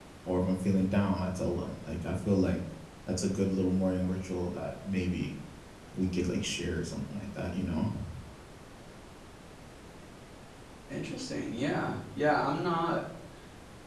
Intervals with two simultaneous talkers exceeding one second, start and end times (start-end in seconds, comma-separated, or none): none